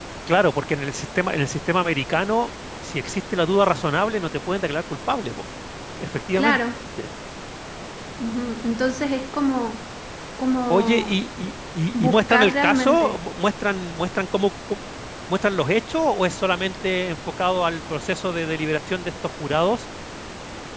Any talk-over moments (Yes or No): Yes